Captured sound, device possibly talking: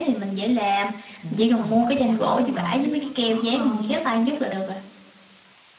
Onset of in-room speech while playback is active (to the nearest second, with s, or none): 1 s